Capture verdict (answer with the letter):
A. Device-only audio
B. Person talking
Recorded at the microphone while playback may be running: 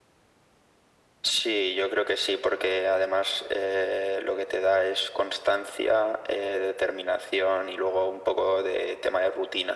A